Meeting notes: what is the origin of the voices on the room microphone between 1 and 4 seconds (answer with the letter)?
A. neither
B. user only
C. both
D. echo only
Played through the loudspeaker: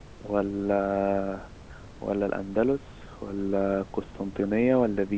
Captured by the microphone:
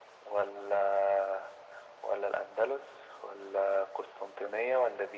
D